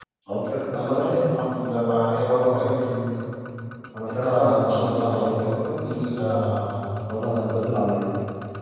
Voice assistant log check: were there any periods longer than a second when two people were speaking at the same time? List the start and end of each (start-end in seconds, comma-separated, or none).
4.2-5.5